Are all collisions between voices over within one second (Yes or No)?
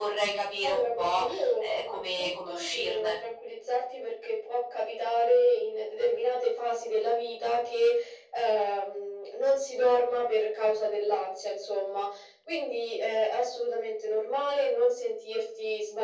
No